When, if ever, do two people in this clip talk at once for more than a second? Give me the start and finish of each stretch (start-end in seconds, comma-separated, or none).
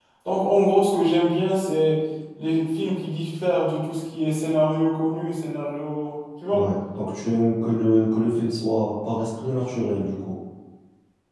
none